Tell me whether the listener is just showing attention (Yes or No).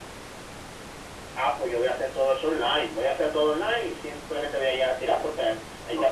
Yes